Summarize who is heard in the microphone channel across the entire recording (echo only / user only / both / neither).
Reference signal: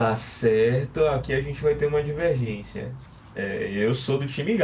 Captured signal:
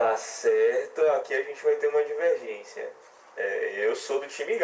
echo only